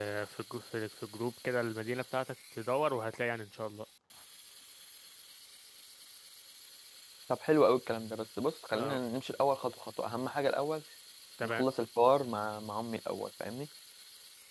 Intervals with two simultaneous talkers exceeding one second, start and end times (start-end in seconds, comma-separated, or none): none